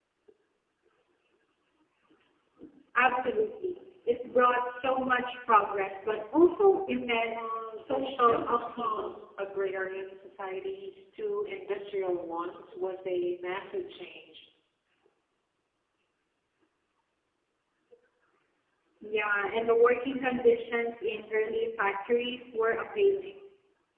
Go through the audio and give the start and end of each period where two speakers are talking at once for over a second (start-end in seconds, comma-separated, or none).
7.3-9.1